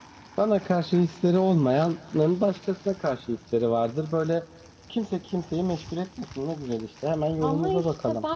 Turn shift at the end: Yes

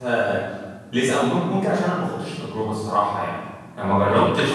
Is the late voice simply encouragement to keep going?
Yes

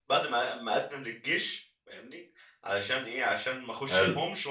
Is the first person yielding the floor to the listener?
No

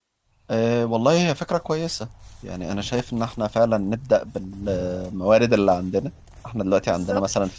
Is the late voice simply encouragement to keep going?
Yes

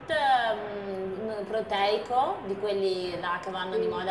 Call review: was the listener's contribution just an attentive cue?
Yes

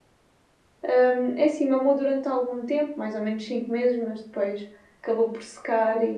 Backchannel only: Yes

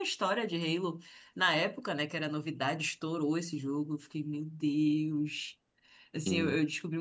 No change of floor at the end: Yes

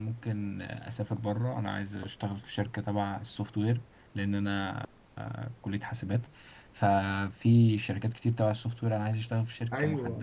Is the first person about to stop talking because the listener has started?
Yes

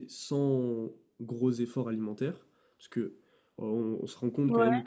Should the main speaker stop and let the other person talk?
No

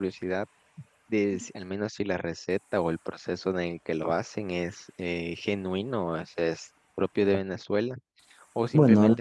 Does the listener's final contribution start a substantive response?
No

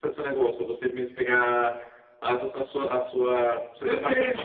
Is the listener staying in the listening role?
No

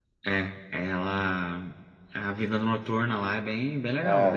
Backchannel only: No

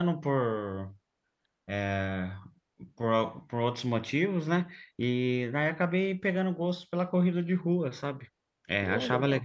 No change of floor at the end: Yes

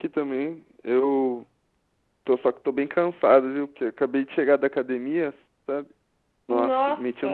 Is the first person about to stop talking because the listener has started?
No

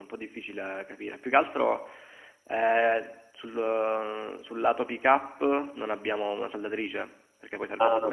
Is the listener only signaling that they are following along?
No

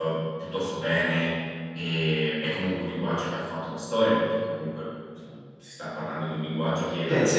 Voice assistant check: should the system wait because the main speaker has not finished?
No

